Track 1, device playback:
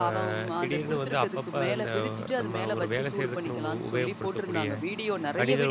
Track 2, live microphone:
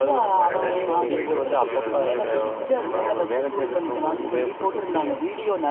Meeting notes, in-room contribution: present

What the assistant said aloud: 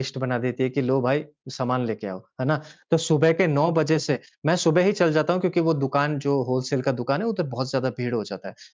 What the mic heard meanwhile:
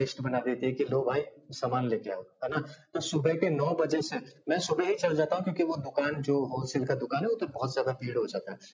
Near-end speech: none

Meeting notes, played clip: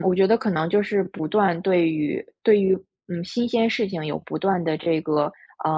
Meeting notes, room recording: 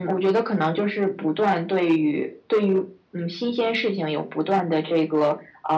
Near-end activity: none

